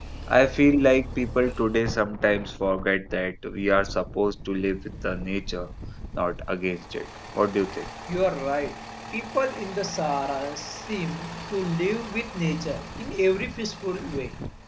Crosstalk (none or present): none